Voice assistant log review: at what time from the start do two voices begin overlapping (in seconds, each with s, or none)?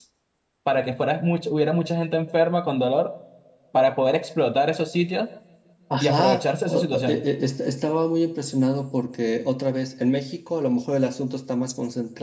6.0 s